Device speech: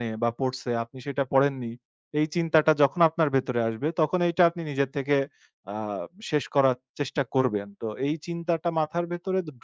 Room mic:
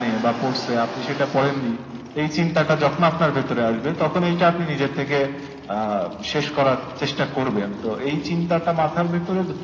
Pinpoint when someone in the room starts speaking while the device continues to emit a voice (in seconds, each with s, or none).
none